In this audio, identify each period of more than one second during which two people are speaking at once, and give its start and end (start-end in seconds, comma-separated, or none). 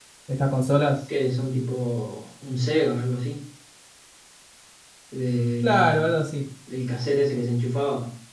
none